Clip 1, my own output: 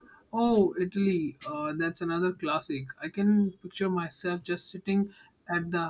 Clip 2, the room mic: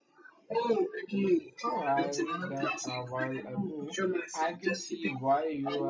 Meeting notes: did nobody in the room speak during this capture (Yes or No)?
No